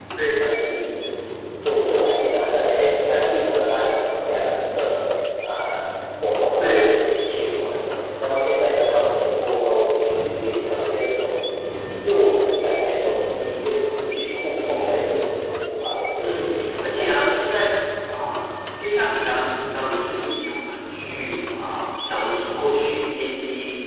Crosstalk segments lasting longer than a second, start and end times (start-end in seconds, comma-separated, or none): 16.2-17.5